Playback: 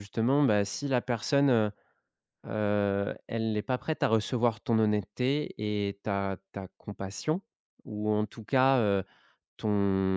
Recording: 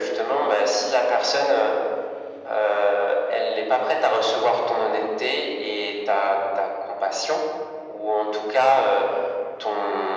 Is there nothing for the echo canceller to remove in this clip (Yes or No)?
No